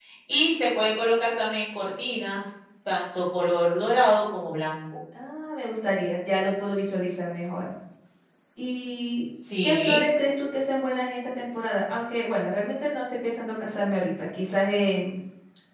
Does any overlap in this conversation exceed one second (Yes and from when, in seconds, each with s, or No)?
No